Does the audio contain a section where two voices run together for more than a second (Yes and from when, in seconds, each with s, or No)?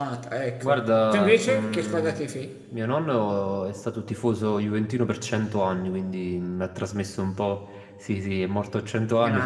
Yes, from 0.6 s